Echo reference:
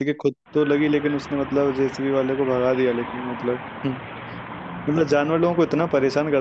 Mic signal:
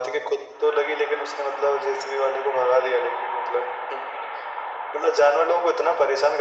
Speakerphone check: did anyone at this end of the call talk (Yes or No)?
No